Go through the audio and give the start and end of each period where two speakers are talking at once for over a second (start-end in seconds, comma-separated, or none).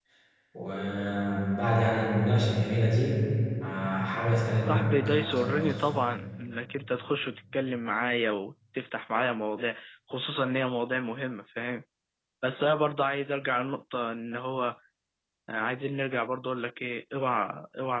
4.6-5.9